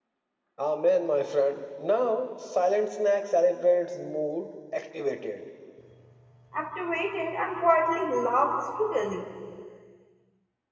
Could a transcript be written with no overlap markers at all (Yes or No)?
Yes